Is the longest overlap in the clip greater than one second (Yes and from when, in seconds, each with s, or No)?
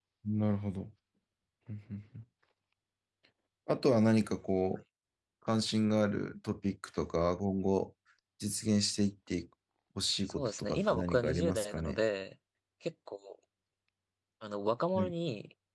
Yes, from 10.3 s